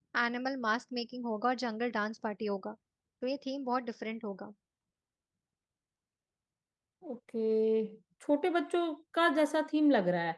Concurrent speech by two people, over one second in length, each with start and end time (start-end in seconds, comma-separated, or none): none